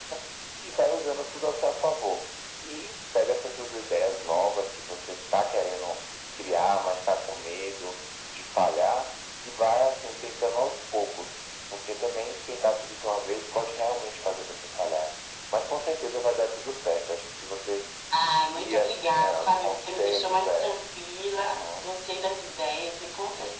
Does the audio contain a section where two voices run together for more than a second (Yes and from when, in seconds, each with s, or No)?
Yes, from 18.4 s